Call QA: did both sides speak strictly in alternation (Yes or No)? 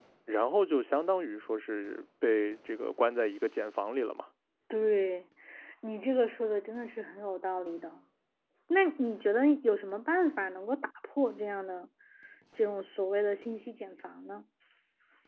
Yes